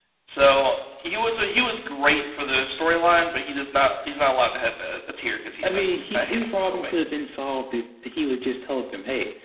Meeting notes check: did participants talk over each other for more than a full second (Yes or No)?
Yes